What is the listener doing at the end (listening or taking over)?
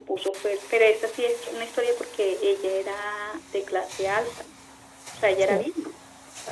listening